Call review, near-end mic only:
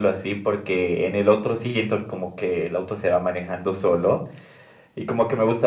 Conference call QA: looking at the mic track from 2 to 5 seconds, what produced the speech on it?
echo only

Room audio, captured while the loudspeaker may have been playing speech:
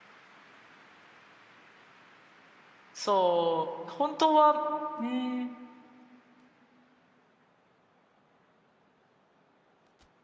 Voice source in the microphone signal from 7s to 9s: neither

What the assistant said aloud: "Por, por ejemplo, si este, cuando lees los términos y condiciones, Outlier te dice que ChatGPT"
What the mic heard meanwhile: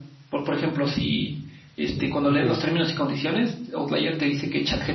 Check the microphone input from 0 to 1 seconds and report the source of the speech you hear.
echo only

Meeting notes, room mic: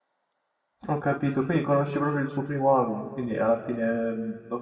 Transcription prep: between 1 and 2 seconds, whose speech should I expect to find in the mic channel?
user only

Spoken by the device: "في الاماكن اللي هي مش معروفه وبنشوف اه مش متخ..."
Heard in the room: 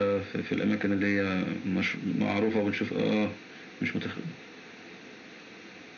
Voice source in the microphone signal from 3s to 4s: echo only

